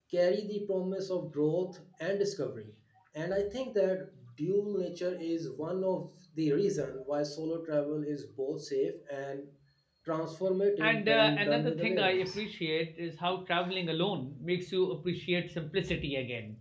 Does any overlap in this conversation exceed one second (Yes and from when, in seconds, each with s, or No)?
Yes, from 10.8 s